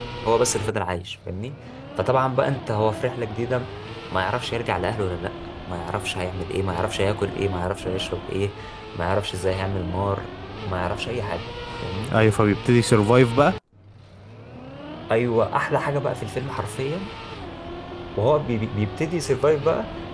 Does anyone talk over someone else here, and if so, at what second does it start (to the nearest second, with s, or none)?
none